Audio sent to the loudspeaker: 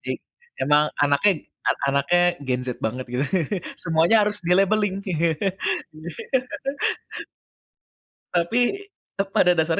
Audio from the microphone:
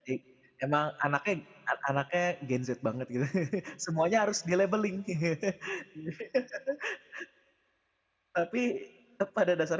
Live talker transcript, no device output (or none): none